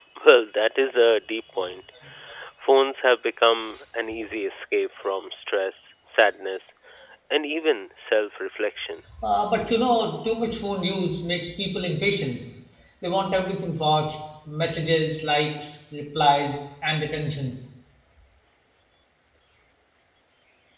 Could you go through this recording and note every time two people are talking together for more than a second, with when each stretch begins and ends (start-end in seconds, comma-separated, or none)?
none